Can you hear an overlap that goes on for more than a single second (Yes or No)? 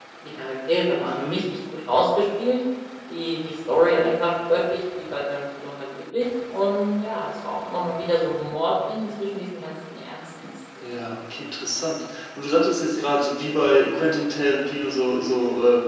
No